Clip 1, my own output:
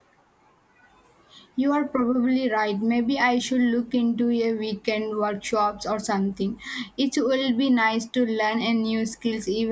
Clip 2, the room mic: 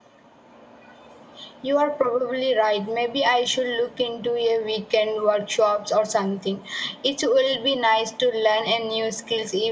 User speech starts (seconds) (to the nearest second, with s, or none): none